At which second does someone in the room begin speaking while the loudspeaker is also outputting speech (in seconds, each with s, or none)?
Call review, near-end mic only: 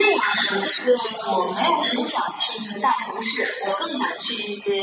none